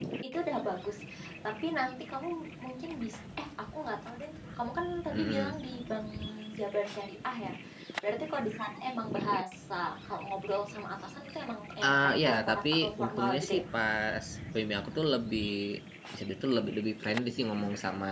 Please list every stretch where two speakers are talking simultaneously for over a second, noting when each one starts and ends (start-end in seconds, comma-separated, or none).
11.8-13.6